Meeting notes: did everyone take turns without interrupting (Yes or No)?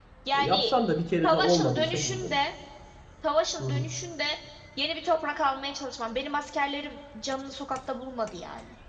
No